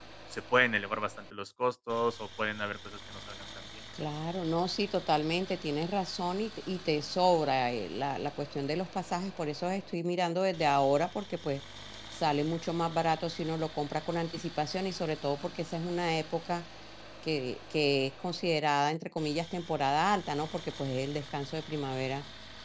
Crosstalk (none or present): none